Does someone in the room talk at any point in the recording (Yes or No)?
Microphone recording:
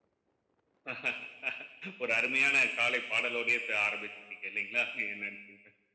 No